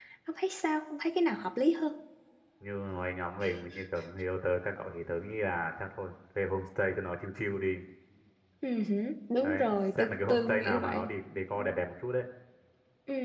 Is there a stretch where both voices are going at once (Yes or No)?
Yes